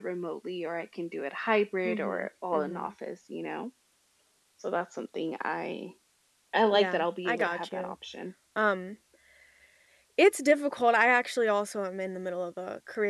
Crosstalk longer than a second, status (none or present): present